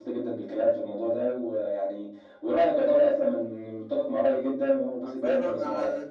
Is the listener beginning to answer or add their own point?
Yes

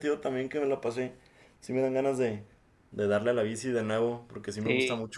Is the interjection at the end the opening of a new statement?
Yes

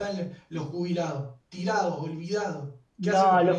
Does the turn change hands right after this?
Yes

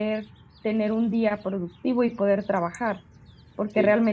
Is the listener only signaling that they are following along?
Yes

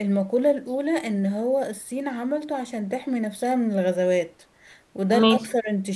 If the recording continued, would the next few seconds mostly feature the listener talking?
No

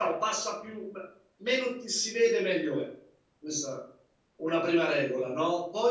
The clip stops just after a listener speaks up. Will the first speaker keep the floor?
Yes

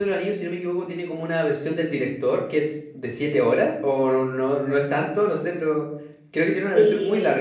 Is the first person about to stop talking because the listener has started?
Yes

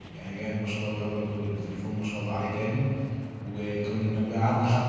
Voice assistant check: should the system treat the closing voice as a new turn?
No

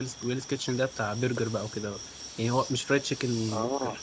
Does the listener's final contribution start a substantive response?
No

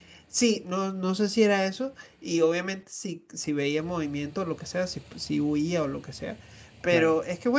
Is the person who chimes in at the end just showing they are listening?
Yes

